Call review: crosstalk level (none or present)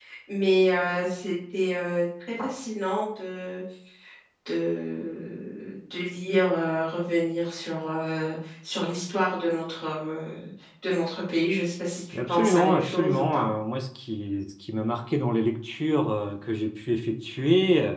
present